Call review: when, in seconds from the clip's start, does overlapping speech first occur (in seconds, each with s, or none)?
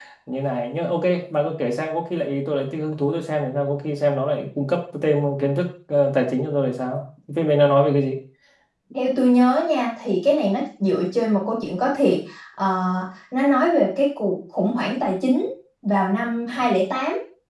none